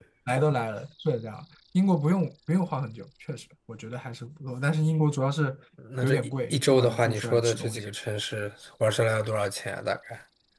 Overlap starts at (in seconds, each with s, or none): 6.0 s